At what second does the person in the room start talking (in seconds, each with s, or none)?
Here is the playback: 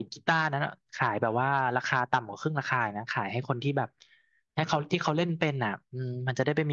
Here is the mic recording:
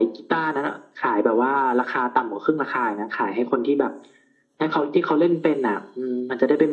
none